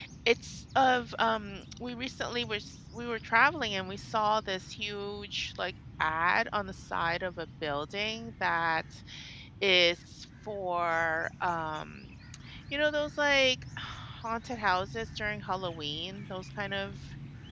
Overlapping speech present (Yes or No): No